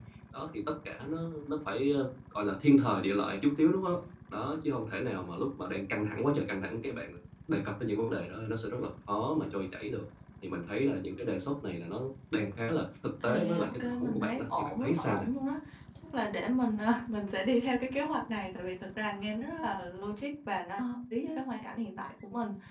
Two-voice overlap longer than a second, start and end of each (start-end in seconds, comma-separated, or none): 13.2-15.3